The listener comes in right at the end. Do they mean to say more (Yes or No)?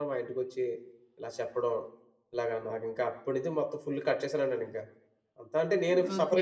Yes